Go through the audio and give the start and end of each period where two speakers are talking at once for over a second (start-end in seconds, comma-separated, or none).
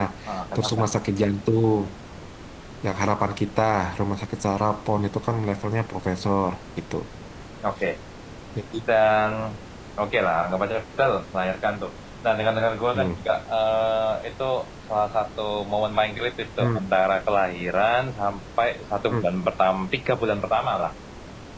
none